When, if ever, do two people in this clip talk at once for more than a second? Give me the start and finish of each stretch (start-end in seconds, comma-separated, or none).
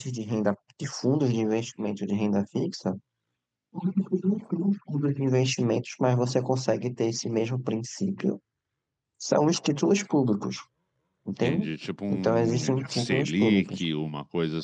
12.1-13.8